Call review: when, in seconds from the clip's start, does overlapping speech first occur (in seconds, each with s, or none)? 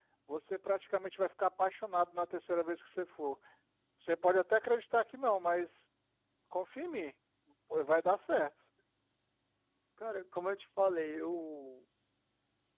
none